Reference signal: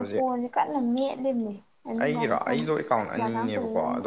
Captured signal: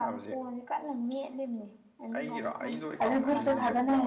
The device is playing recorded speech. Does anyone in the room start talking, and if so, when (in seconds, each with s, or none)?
3.0 s